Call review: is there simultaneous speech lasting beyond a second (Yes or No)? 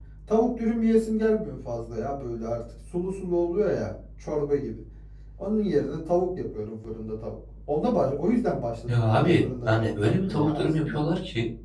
Yes